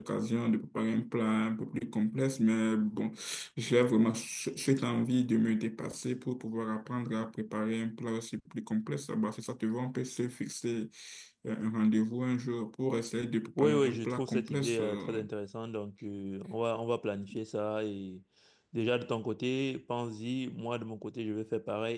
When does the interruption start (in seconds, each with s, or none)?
13.6 s